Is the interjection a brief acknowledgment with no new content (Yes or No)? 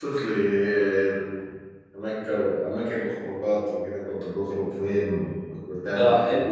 No